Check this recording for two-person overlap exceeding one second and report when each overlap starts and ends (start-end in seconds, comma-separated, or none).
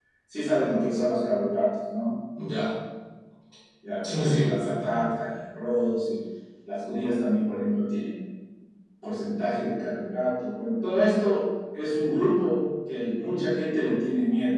4.0-5.2